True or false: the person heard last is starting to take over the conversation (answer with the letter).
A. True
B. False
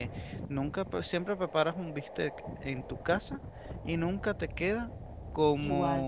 B